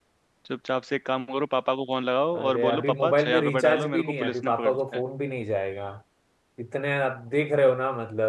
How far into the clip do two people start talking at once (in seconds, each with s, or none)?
2.3 s